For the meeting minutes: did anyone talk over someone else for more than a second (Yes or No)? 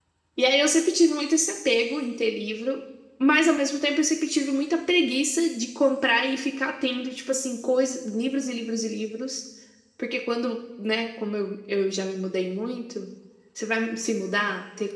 No